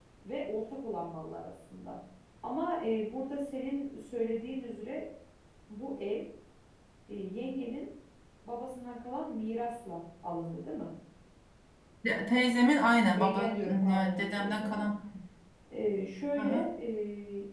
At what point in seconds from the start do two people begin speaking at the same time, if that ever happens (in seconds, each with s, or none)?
13.2 s